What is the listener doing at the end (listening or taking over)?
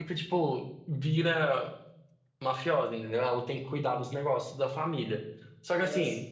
listening